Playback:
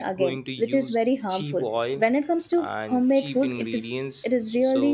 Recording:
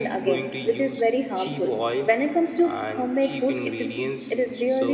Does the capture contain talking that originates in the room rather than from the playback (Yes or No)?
No